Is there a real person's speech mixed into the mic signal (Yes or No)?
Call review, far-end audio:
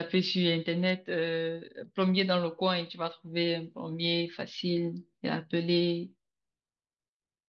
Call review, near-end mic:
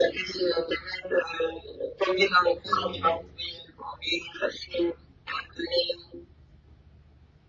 Yes